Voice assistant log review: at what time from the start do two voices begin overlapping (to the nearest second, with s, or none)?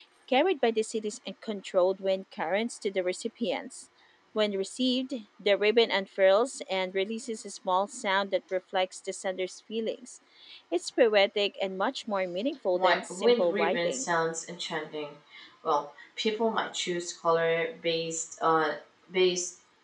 13 s